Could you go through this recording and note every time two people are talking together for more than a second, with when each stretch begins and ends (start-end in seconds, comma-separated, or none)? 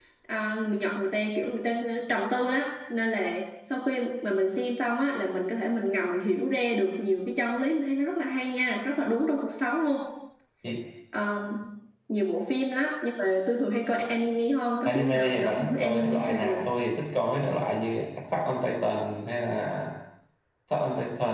14.8-16.6